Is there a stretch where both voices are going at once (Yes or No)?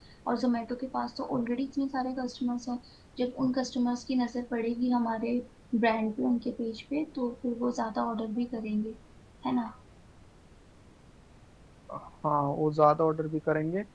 No